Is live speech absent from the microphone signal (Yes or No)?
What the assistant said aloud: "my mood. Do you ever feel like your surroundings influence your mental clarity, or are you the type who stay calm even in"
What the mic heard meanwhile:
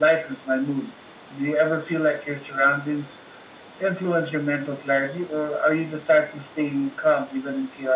Yes